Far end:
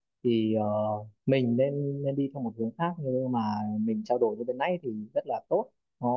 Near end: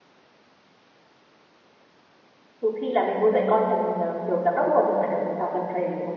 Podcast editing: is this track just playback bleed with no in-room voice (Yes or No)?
No